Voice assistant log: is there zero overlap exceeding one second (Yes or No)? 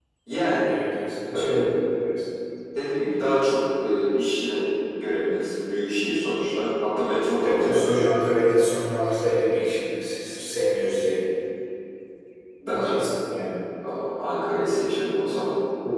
Yes